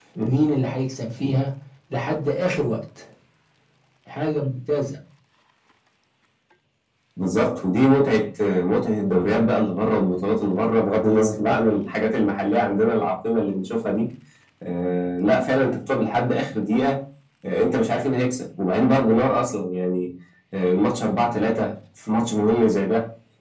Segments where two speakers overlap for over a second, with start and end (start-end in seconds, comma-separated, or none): none